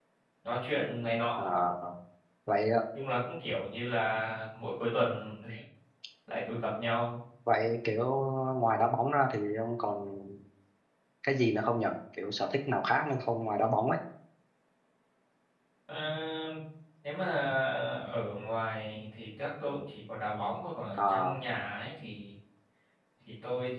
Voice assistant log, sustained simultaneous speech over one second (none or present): none